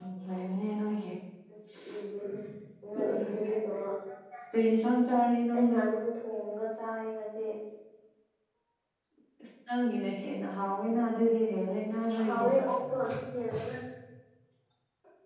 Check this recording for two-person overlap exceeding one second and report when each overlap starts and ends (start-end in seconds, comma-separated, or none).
none